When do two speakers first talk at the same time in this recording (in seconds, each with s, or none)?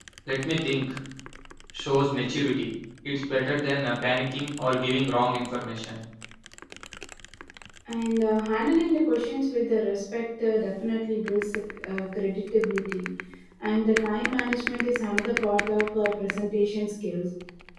none